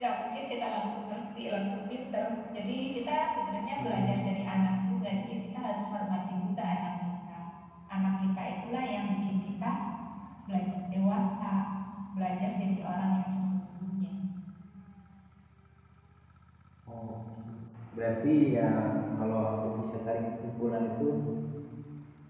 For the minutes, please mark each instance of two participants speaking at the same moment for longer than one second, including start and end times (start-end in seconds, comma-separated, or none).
none